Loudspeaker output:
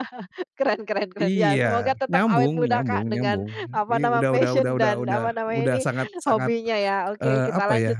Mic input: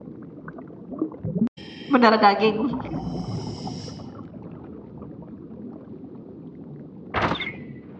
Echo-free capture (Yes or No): Yes